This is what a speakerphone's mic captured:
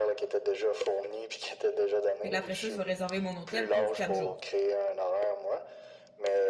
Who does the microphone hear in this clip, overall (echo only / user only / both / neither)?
both